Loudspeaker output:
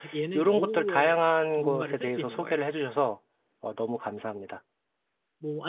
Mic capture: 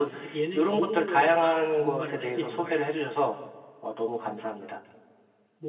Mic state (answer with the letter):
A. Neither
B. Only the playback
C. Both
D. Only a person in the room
B